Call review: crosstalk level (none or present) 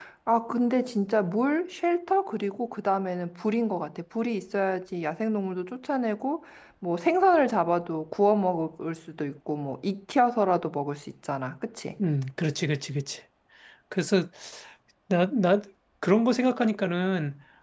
none